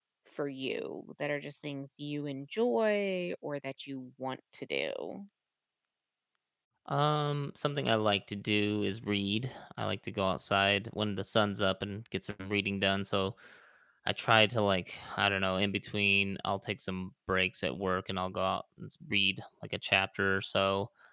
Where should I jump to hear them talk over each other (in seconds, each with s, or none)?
none